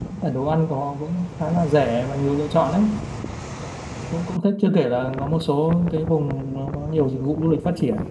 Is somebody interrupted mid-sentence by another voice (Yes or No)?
No